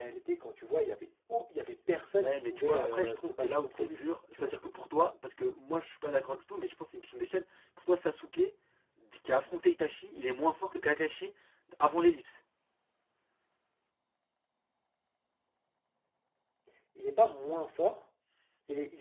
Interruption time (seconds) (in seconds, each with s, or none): 2.2 s